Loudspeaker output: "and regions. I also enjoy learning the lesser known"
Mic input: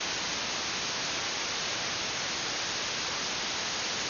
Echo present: No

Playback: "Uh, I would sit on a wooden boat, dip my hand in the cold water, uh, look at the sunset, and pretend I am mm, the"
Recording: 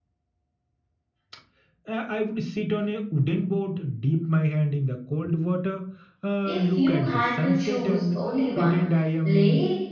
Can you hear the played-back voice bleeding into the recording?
Yes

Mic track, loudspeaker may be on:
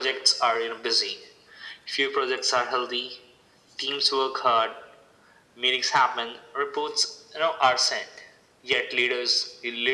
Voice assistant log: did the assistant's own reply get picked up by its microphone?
Yes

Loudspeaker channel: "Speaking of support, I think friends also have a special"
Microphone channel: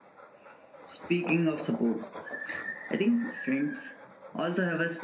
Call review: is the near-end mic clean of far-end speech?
No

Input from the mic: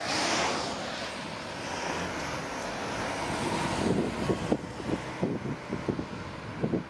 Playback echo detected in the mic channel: No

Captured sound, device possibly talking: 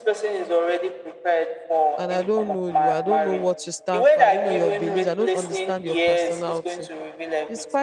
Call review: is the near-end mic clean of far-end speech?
No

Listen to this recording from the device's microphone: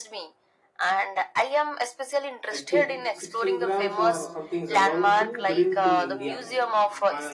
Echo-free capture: No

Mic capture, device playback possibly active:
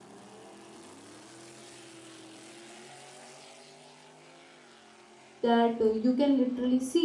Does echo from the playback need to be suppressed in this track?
No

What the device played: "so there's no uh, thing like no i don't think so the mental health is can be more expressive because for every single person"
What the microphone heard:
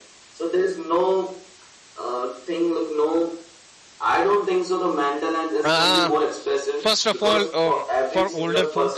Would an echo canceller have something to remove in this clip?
Yes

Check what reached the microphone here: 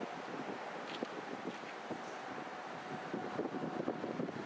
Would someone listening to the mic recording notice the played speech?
No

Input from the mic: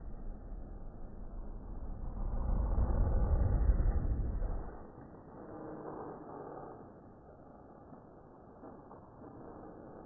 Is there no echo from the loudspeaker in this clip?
Yes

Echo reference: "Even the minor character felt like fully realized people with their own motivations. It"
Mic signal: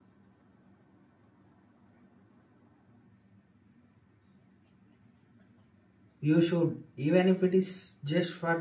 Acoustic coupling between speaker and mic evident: No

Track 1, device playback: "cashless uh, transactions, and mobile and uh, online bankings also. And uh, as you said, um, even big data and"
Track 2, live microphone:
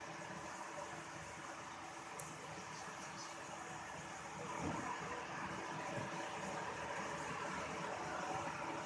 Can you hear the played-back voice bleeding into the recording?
No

